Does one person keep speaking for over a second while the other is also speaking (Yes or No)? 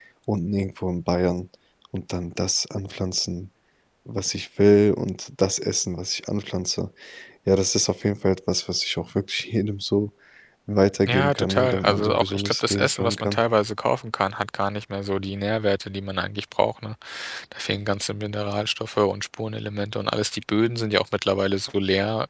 Yes